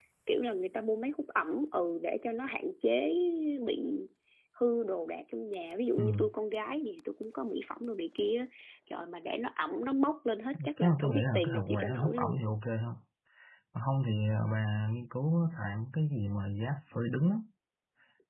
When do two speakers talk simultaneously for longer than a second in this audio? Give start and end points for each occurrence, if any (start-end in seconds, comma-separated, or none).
10.8-12.4